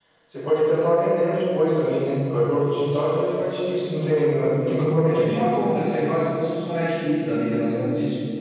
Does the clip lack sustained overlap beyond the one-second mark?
Yes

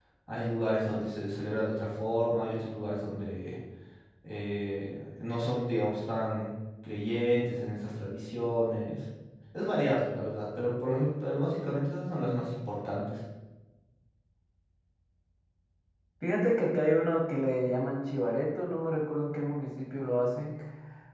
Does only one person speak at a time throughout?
Yes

